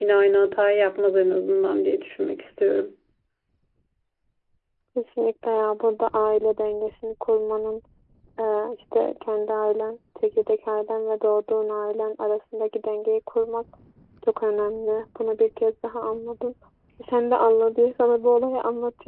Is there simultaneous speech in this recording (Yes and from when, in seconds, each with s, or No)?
No